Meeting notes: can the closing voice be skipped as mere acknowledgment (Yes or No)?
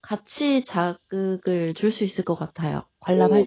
No